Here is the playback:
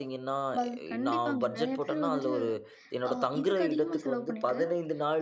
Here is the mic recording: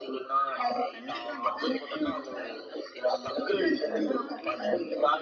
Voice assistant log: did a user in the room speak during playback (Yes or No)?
Yes